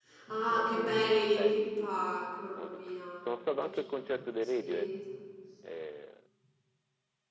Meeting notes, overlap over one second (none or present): present